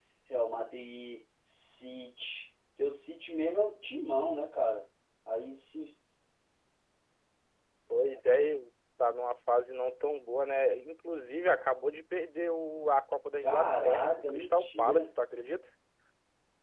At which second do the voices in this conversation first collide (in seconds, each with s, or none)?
13.4 s